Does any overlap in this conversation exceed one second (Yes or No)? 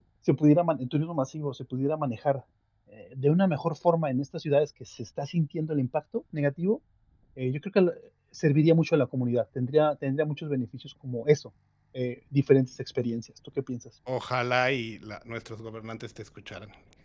No